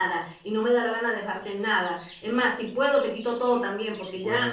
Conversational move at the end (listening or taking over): taking over